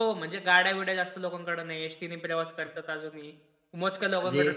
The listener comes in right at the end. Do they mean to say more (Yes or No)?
No